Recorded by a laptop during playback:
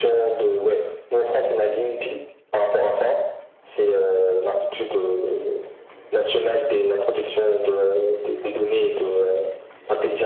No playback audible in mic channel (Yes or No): No